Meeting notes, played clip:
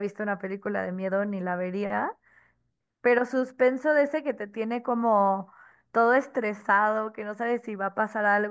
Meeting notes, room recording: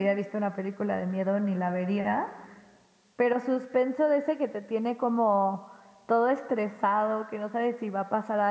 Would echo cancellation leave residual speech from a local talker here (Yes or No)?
No